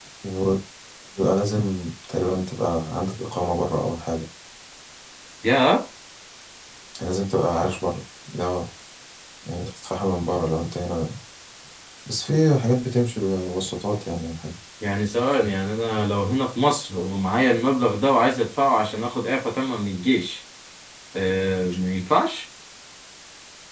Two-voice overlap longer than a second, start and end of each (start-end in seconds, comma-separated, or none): none